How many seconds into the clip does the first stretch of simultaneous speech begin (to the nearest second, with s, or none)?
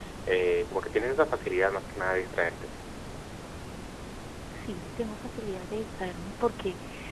none